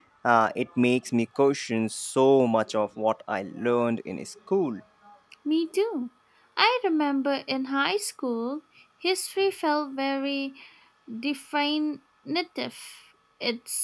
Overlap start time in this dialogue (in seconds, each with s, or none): none